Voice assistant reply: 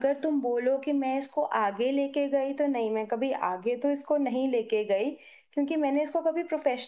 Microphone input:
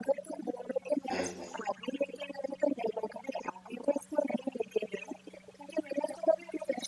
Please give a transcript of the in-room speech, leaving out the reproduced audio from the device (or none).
हम्म,